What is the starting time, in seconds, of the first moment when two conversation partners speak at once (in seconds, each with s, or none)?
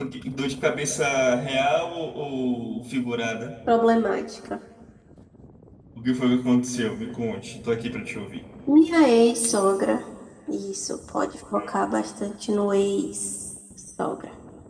none